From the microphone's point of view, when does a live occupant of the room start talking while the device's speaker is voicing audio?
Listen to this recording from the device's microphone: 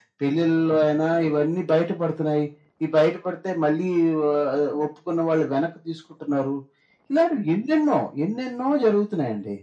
none

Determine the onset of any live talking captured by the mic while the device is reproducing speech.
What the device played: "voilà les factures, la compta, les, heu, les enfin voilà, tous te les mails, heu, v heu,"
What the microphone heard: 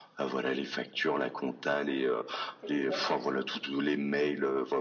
3 s

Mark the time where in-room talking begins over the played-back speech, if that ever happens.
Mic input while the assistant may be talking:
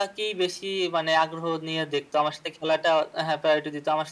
none

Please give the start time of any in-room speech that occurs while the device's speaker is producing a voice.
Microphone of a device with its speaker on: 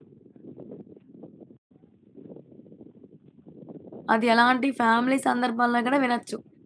4 s

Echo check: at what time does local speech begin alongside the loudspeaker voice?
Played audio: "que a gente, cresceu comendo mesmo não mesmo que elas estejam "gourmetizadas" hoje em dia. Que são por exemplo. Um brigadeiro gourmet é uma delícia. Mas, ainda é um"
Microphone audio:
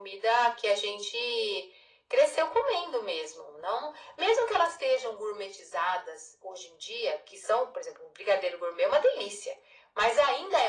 none

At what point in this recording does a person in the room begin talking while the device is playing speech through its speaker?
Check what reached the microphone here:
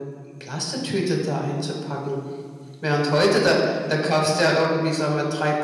none

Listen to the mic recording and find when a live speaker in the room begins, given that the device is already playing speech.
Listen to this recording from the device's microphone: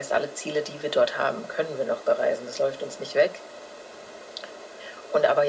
none

